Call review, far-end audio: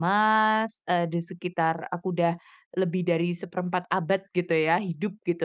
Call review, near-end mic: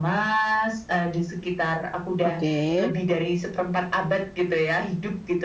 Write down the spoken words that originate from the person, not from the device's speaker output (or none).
Oke.